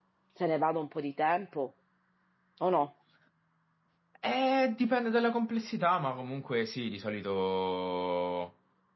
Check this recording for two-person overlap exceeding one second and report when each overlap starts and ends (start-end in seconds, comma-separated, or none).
none